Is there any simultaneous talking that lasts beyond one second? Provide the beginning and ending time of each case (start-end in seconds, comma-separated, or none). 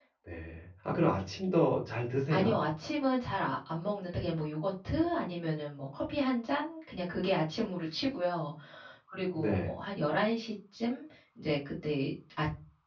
none